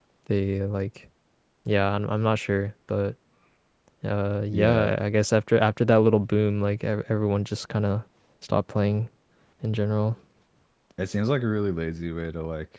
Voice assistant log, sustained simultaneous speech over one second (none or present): none